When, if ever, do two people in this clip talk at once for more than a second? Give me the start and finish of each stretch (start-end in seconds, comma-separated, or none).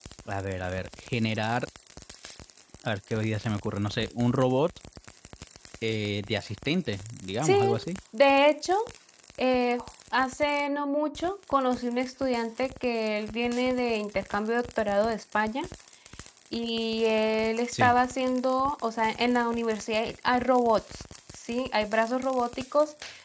none